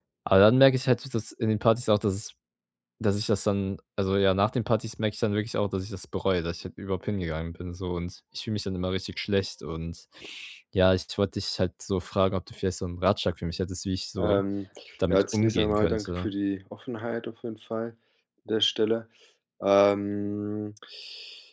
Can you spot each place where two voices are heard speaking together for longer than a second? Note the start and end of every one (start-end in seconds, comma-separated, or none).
15.1-16.3